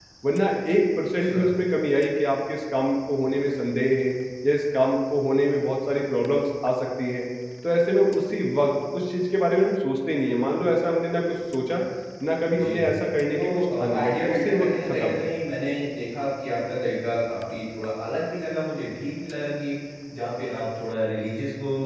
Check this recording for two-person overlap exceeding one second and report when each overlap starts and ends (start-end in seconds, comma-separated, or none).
13.3-15.2